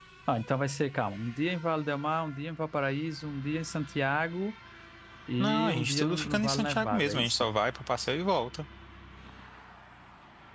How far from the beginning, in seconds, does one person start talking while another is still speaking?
5 s

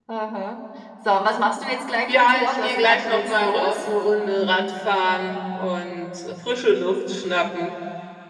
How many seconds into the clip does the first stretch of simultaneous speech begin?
2 s

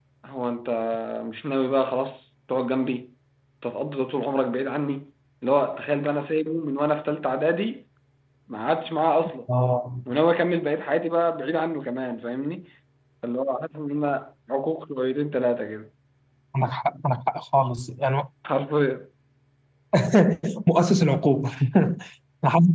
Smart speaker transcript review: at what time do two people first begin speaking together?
none

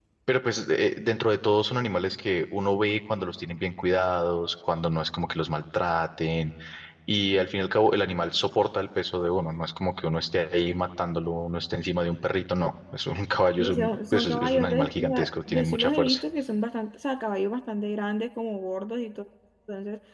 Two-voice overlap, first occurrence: 14 s

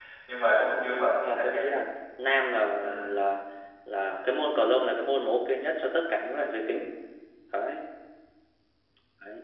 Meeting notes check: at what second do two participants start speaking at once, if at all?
1 s

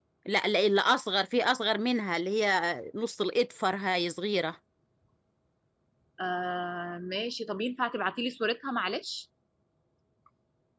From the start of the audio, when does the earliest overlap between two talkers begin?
none

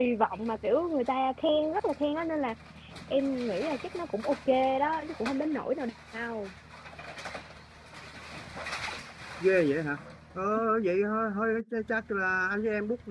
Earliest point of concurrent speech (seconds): none

